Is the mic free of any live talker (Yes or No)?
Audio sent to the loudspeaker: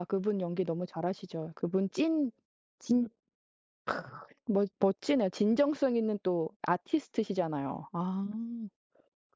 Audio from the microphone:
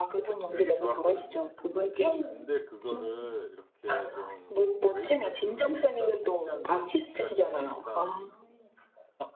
No